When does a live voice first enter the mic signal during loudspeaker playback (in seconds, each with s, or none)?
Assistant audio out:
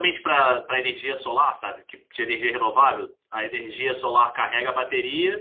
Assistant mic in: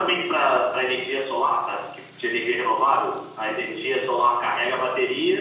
none